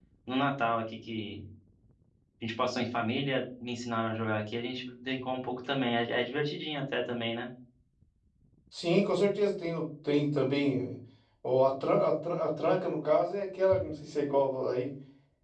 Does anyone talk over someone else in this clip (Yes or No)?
No